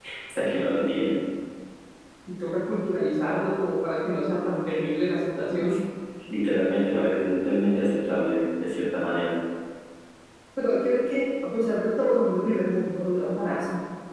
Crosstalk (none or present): none